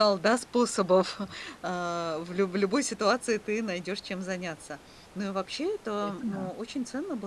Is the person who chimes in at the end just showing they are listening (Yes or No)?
Yes